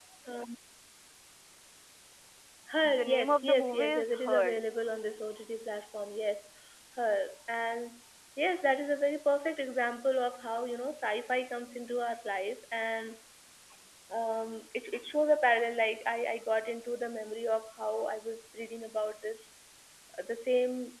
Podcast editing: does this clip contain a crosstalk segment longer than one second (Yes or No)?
Yes